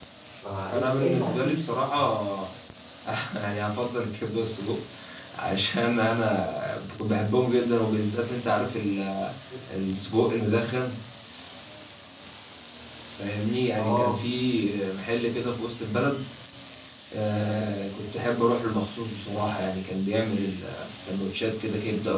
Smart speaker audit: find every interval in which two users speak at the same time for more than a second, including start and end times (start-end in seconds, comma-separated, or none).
0.7-1.9